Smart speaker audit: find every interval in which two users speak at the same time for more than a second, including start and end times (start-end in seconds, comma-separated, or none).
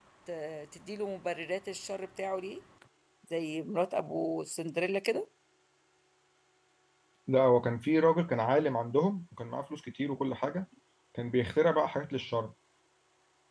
none